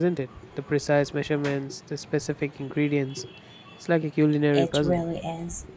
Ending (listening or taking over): taking over